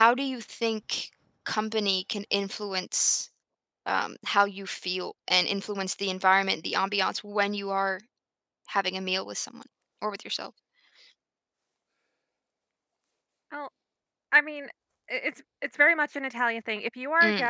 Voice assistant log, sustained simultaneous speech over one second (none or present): none